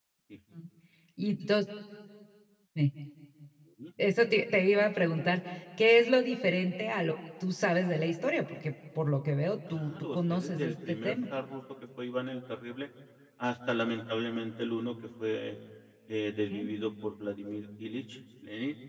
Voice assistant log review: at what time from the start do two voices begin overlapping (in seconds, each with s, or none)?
9.7 s